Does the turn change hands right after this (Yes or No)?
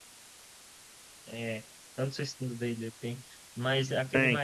Yes